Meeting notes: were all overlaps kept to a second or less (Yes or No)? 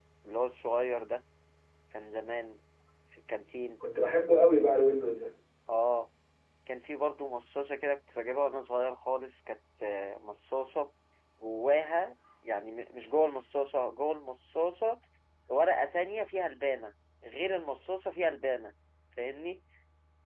Yes